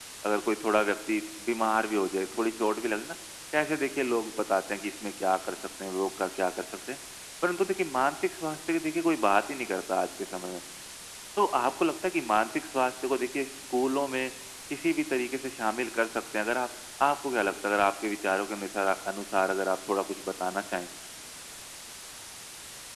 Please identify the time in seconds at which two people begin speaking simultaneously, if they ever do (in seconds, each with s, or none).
none